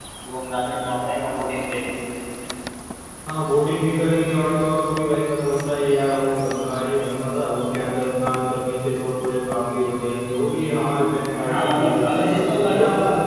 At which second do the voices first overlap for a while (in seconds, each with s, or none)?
11.5 s